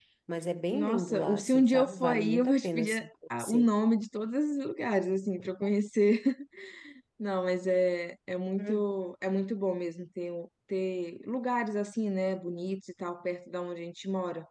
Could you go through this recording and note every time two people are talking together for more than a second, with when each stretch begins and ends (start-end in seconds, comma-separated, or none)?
0.7-3.7